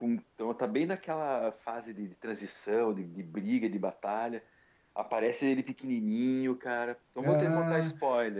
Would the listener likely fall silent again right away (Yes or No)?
No